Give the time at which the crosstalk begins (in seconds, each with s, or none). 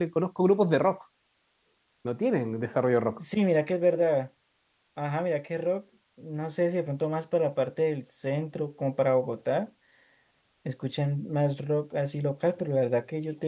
none